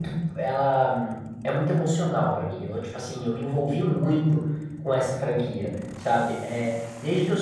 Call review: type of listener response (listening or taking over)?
listening